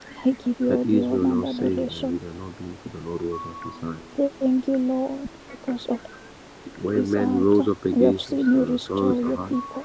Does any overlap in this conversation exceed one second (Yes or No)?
Yes